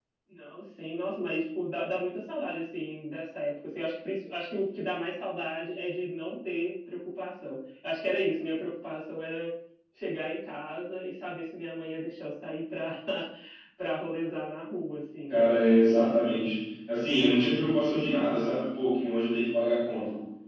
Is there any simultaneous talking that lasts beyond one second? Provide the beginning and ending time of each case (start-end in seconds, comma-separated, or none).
none